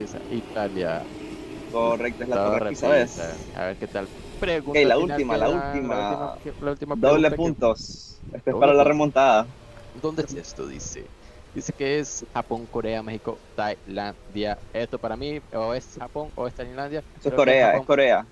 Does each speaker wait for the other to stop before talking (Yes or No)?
No